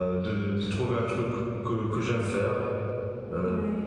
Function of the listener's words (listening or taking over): listening